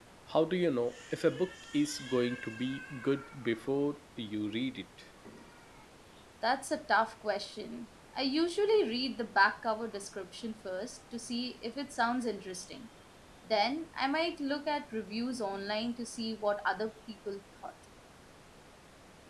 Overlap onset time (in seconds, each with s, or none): none